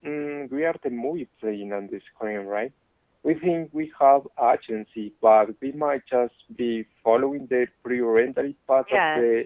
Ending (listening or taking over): taking over